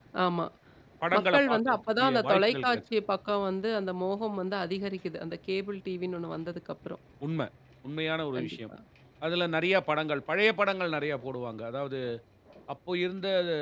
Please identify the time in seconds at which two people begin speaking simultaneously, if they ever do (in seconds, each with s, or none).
1.2 s